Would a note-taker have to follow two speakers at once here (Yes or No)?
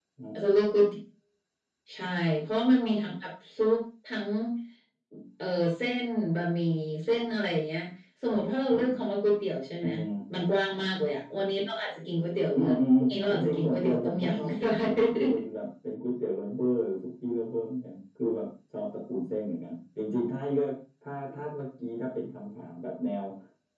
Yes